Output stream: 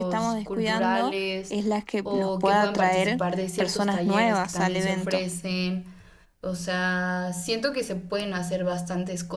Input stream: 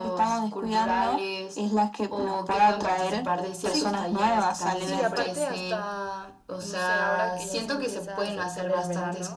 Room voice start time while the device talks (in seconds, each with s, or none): 3.6 s